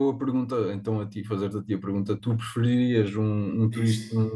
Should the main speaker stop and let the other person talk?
No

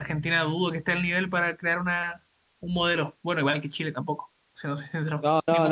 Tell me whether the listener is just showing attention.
No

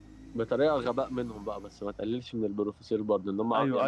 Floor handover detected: Yes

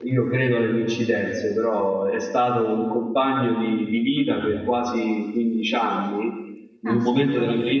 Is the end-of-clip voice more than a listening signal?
No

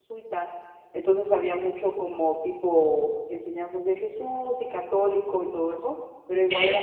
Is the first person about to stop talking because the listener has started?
No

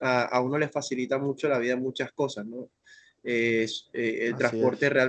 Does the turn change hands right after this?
No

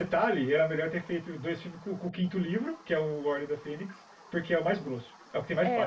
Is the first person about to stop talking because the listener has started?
Yes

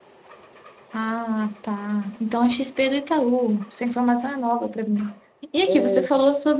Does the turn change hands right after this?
No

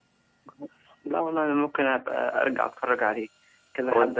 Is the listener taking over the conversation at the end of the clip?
No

